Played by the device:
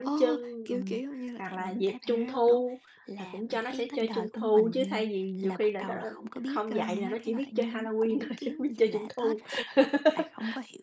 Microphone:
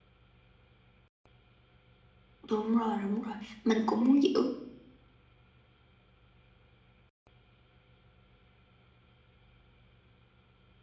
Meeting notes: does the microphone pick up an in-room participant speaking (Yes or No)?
Yes